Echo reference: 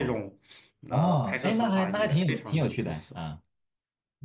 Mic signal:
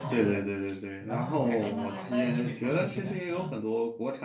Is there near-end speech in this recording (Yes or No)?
Yes